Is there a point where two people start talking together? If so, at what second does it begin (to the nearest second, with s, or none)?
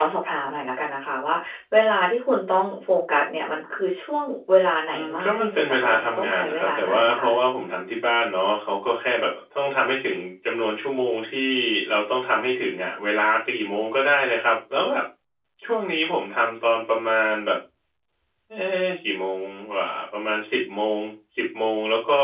5 s